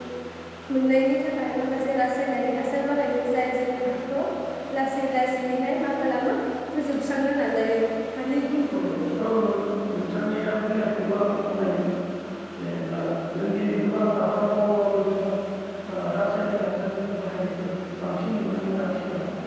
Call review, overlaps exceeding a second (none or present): none